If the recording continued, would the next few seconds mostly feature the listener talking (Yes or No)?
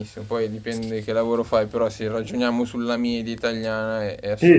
Yes